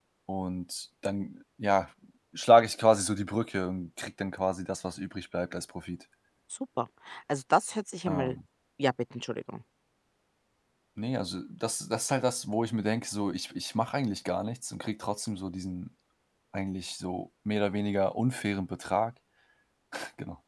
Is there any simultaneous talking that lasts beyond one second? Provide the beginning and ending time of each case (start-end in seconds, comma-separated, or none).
none